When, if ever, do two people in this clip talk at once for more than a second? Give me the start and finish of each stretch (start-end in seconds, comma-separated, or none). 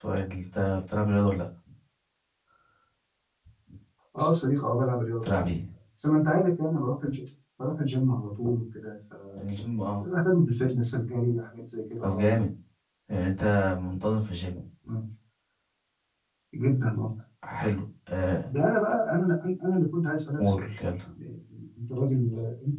none